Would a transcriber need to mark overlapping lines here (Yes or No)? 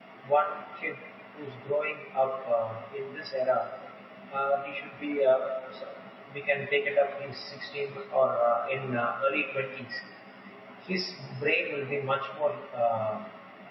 No